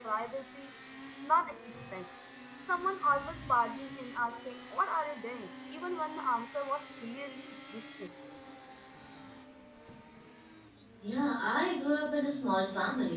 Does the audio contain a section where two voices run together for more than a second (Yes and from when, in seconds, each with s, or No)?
No